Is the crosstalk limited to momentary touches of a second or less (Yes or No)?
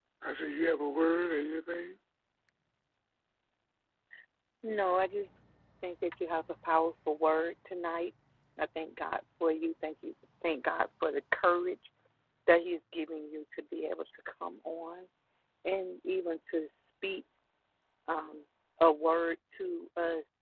Yes